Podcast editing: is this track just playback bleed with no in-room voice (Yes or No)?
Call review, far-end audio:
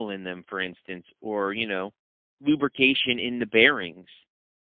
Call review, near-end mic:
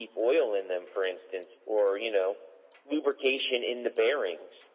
Yes